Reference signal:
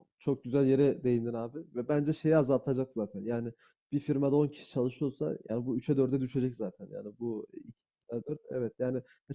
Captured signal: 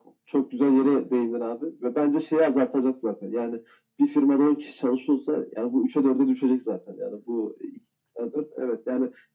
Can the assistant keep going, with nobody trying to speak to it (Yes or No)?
Yes